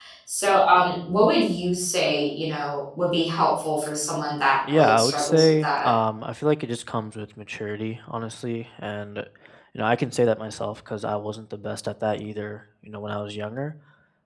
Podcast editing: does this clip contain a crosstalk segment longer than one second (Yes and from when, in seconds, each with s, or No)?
Yes, from 4.6 s